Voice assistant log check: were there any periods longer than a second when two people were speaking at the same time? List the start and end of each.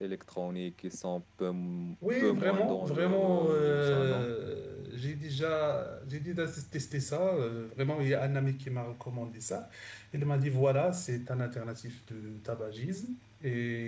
2.2-4.3

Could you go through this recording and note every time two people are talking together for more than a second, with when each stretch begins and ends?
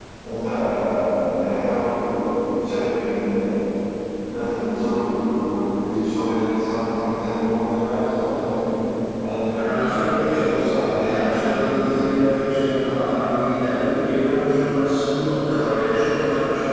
9.6-11.9

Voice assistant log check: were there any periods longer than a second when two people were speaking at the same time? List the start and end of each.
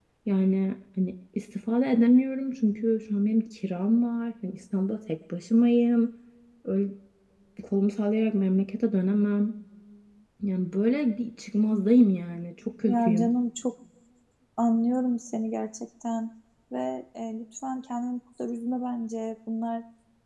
none

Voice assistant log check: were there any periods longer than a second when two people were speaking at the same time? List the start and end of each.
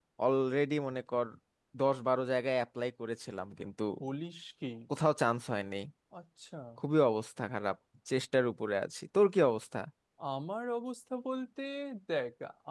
none

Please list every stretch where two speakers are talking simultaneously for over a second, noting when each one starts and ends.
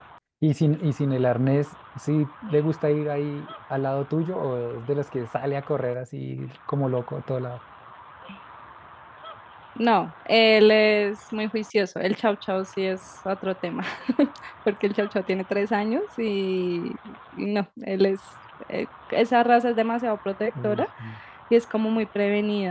none

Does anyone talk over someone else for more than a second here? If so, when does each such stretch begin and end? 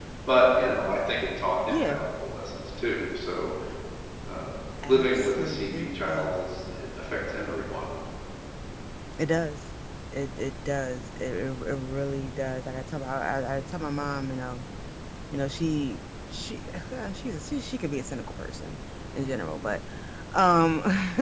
4.9-6.3

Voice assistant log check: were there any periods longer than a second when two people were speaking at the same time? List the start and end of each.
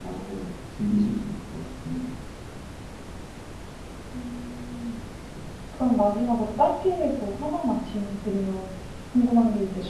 none

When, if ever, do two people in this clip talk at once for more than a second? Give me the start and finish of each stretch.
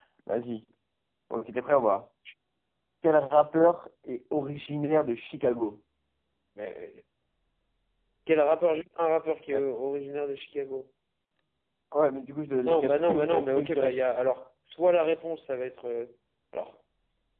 12.7-14.0

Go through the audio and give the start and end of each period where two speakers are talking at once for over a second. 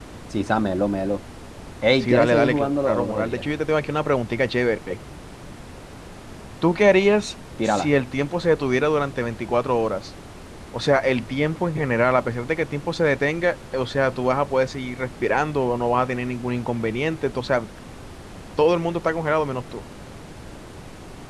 2.0-3.5

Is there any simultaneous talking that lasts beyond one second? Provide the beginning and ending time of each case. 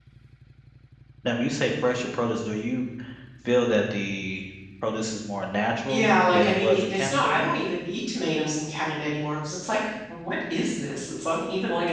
5.9-7.4

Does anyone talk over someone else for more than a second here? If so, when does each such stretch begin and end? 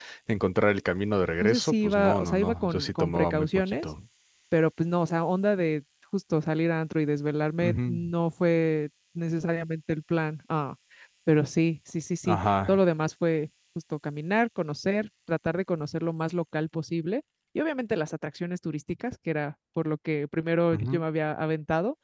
1.4-3.9

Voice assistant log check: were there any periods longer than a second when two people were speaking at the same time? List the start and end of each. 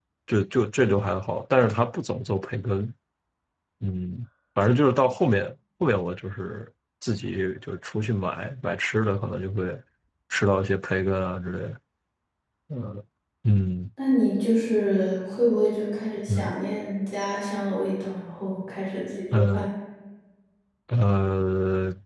none

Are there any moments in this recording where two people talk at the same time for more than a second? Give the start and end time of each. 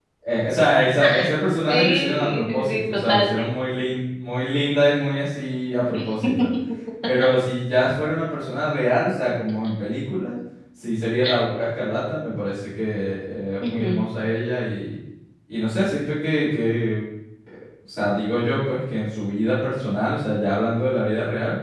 1.7-3.3

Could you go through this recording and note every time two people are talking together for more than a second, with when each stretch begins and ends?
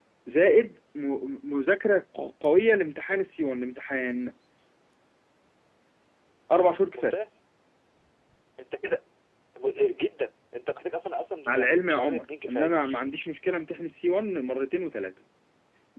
11.5-12.7

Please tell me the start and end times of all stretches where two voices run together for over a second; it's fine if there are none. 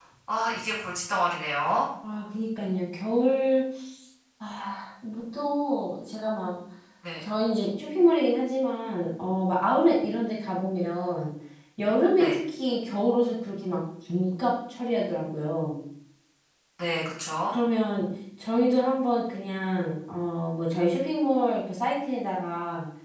none

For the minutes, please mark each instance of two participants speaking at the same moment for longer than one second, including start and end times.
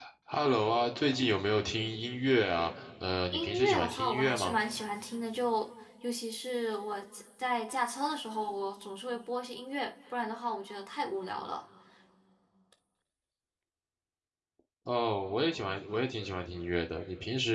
3.3-4.6

